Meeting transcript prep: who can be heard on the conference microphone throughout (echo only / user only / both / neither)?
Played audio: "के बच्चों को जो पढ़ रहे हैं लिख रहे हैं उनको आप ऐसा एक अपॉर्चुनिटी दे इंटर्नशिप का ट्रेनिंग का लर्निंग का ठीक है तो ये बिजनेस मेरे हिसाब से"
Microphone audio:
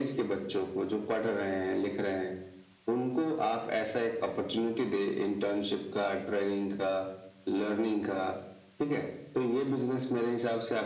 echo only